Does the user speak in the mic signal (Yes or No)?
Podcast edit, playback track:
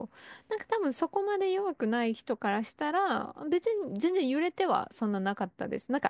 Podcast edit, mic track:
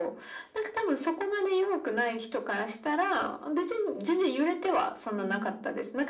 Yes